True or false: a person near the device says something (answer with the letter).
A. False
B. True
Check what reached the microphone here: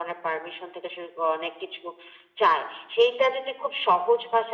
A